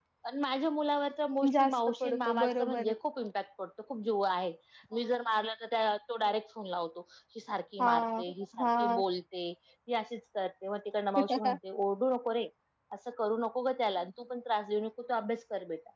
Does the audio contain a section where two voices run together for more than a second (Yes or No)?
Yes